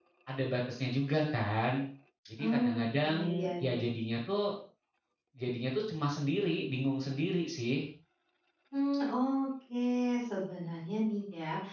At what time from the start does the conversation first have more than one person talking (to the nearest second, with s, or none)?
3 s